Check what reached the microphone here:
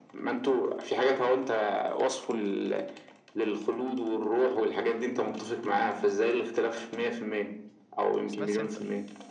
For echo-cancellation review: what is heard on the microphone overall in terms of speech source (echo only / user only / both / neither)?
both